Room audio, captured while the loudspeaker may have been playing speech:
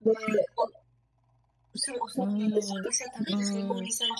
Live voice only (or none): うーん、うーん。